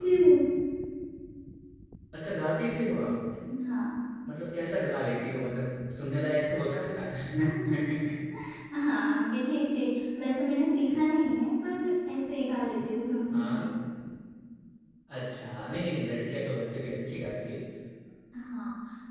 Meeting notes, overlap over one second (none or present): none